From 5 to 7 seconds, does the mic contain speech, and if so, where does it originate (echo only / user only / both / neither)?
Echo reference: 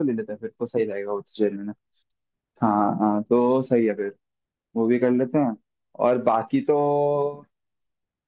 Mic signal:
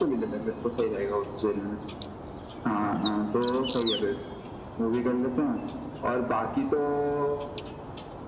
echo only